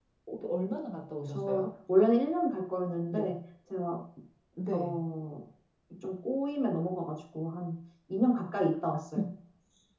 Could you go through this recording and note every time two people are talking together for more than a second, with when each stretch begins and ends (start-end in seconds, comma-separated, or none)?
none